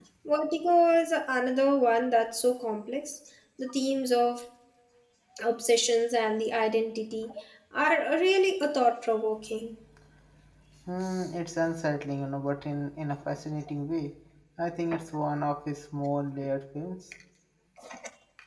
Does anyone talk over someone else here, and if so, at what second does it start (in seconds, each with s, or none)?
none